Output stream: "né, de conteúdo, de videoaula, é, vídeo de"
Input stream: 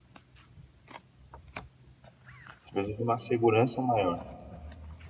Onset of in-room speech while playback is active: 2.6 s

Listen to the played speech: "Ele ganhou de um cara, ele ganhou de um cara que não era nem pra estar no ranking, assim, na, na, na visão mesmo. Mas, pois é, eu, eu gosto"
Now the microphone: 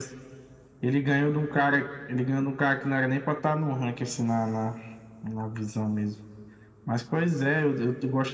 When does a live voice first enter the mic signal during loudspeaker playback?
none

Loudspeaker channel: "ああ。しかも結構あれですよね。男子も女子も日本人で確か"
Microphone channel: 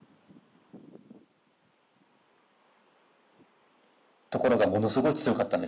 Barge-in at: 4.3 s

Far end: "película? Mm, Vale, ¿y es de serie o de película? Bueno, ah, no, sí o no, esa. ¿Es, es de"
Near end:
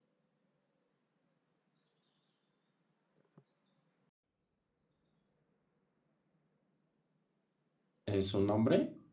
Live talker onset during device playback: 8.1 s

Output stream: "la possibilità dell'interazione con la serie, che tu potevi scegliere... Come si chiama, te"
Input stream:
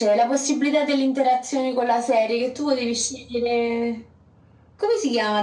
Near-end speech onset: none

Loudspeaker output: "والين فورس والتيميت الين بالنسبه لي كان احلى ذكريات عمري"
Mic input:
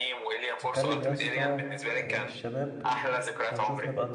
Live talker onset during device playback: 0.6 s

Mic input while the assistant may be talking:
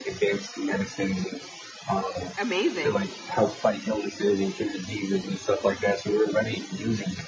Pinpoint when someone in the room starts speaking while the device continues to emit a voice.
2.4 s

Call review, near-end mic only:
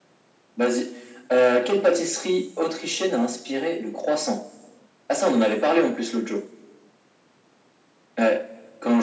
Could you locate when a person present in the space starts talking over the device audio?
none

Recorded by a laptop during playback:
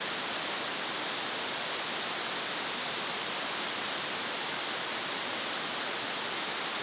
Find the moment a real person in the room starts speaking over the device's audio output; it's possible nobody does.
none

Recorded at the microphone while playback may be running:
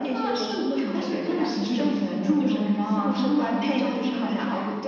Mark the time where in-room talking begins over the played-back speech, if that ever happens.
none

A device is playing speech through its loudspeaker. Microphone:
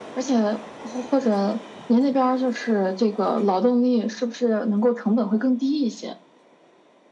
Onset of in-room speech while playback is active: none

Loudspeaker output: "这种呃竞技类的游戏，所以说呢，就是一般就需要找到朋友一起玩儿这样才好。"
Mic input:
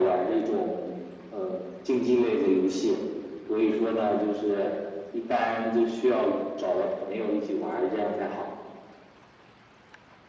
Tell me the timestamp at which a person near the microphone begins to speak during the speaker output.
none

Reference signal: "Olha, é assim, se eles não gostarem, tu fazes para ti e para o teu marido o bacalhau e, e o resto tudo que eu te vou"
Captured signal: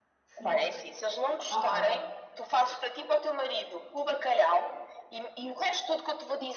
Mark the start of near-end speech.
0.3 s

